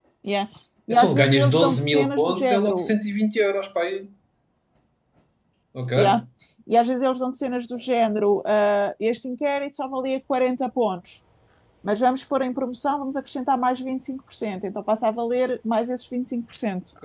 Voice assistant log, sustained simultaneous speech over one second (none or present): present